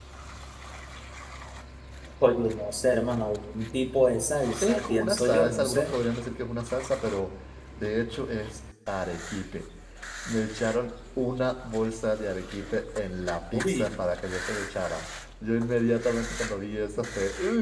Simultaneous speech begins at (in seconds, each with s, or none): 4.6 s